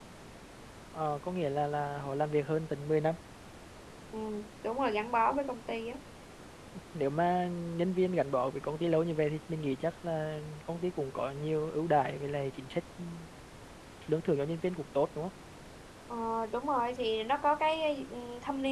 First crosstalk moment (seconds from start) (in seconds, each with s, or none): none